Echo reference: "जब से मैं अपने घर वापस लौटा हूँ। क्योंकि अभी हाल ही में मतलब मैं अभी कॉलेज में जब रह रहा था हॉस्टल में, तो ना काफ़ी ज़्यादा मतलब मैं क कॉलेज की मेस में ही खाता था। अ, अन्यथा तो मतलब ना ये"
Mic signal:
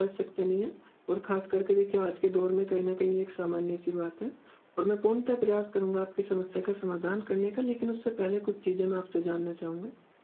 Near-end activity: present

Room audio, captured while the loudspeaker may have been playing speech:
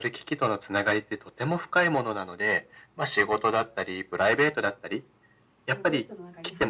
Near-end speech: present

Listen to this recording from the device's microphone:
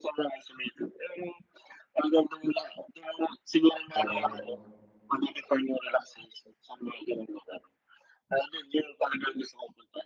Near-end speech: present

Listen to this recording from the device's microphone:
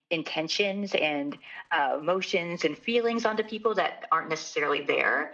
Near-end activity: none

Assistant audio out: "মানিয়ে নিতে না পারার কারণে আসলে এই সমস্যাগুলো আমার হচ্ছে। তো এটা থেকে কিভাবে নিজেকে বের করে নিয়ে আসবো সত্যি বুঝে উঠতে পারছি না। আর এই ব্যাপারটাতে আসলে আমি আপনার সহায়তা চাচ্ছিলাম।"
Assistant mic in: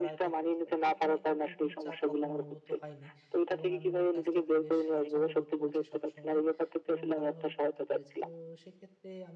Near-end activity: present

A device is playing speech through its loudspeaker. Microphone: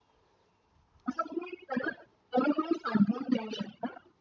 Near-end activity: none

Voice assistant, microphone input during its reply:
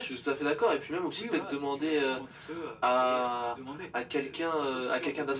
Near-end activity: none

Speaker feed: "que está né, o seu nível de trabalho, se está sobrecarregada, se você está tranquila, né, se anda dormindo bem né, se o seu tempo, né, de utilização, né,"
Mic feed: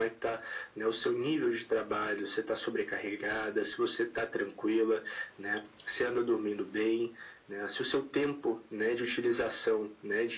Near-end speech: none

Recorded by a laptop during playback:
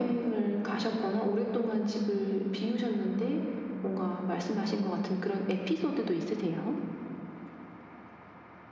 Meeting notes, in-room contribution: none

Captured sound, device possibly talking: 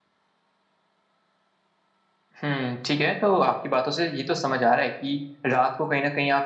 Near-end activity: present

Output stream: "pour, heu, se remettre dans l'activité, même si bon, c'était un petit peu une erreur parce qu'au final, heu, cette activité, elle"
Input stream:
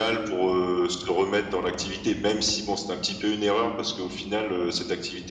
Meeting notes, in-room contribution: none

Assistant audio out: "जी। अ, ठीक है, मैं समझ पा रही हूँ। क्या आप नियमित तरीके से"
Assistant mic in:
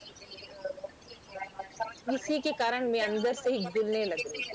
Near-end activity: present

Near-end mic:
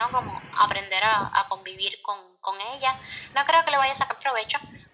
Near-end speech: none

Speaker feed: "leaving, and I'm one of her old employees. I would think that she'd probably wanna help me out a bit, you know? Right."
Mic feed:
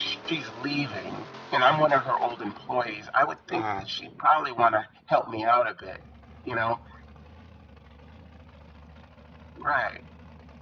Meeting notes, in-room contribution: present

